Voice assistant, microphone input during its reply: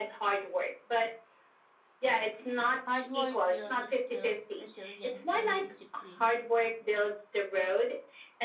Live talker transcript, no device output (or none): Hard work builds skills, resilience, and discipline,